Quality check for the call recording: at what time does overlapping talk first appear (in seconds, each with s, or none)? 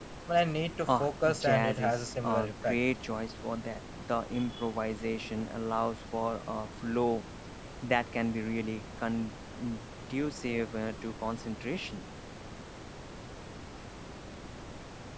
0.9 s